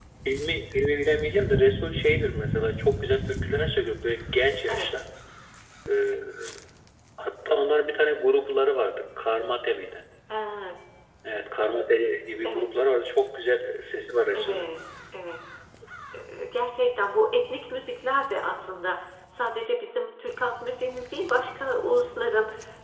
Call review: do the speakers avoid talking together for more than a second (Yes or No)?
Yes